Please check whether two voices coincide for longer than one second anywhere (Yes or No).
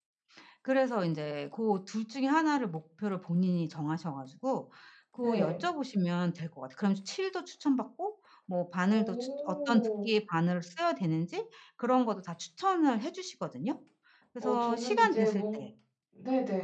Yes